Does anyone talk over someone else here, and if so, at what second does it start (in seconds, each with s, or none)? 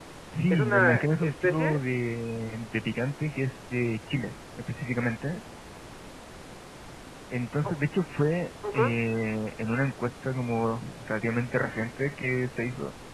0.5 s